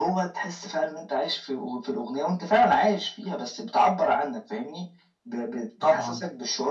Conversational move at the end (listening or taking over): listening